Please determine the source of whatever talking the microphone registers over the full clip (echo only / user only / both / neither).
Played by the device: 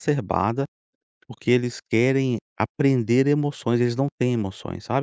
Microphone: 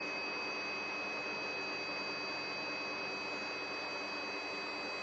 neither